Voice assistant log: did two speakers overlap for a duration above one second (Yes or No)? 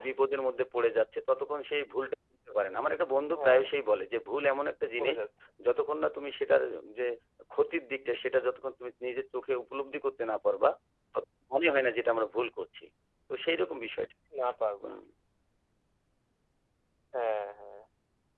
No